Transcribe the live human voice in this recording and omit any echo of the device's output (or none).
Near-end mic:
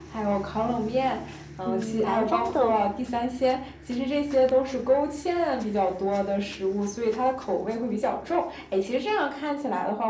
嗯，南方的